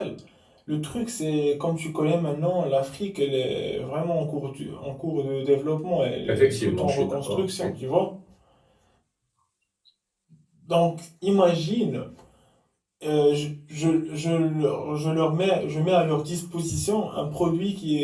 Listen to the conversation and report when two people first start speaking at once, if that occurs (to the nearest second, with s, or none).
6 s